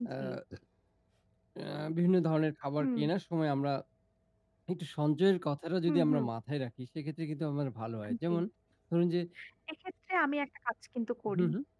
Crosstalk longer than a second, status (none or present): none